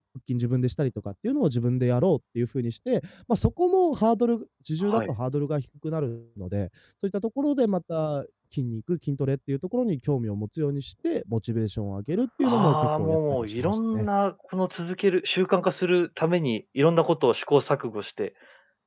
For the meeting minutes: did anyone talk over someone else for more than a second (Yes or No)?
Yes